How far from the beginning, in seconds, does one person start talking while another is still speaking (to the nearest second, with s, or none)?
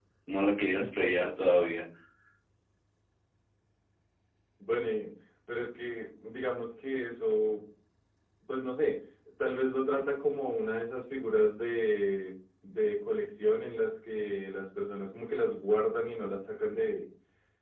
none